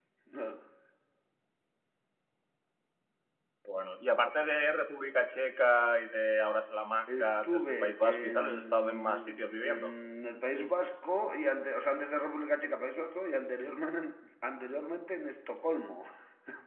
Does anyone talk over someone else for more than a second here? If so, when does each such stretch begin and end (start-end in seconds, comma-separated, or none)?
7.2-9.9